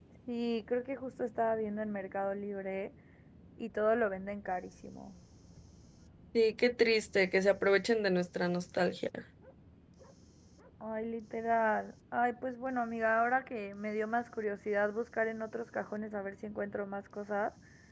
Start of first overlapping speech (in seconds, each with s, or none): none